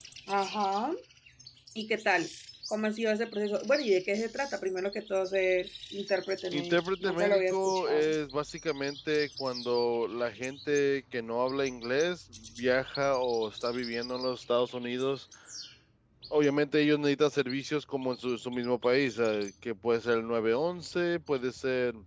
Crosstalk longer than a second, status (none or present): present